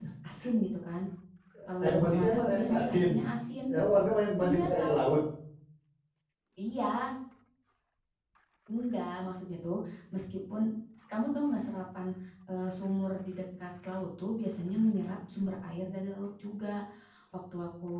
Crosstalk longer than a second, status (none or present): present